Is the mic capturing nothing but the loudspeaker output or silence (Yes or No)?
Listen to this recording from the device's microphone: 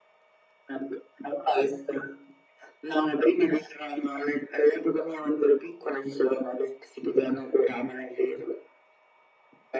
Yes